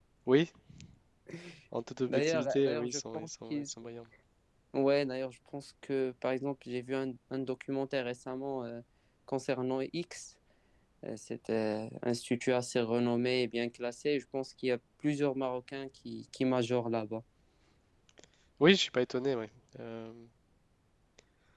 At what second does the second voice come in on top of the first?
2.1 s

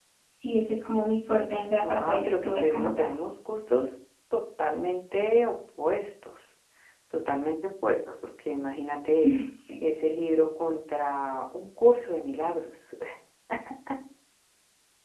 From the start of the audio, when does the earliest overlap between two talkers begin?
1.8 s

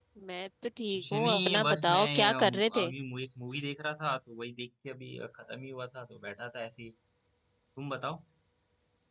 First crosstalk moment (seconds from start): 0.9 s

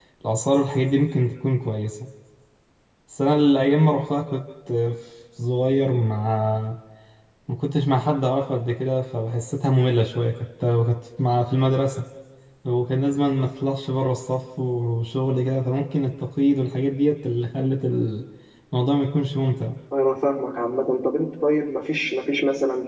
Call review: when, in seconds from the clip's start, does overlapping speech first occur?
none

